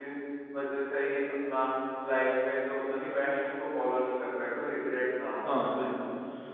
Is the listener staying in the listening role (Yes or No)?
No